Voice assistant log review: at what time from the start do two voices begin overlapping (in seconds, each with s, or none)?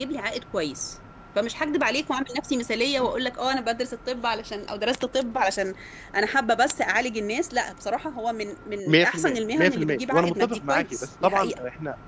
8.8 s